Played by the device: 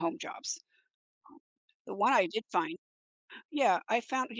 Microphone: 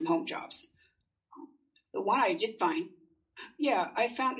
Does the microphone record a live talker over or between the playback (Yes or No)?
No